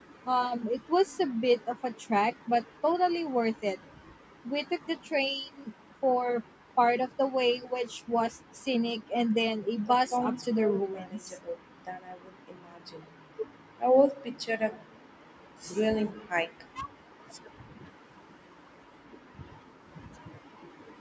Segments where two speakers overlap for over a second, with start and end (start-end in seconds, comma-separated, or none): 9.9-11.3